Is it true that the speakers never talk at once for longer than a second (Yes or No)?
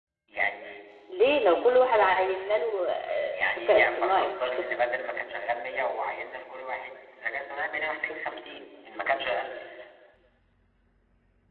No